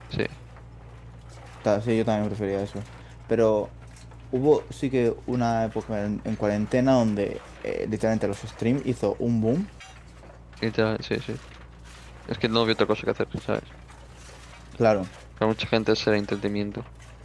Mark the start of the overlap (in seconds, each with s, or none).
none